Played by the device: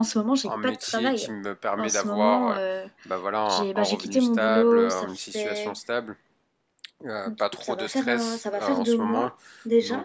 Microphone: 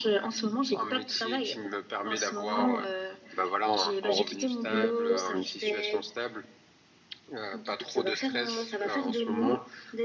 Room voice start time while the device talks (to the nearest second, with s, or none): none